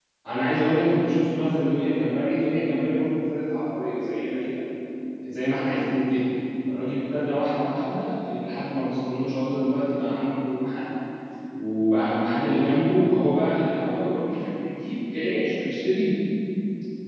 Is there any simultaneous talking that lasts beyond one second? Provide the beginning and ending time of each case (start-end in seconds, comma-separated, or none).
none